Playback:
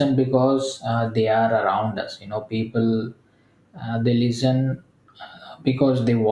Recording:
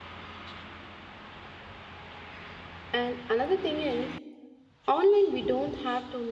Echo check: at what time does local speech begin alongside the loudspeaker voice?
2.9 s

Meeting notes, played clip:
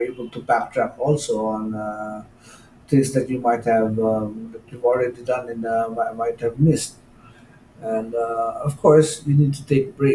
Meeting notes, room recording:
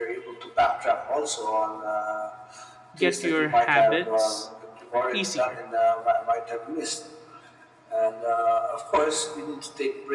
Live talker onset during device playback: 3.0 s

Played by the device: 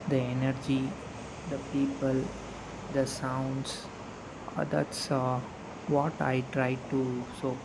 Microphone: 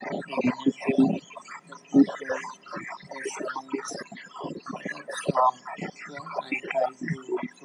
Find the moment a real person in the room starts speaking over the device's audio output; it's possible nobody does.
none

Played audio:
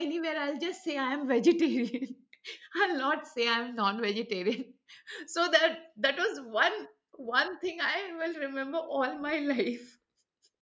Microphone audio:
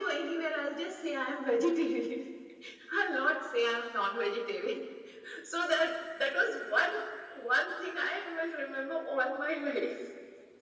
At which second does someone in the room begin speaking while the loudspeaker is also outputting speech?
none

